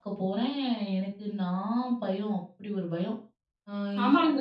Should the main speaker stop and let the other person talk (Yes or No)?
Yes